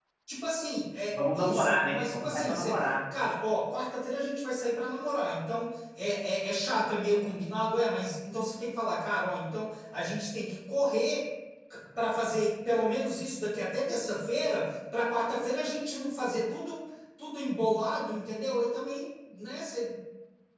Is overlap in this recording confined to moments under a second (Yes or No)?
No